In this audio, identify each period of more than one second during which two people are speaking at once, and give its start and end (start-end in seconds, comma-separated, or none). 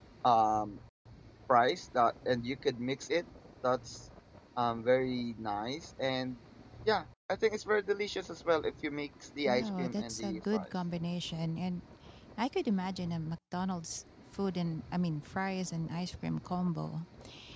9.4-10.7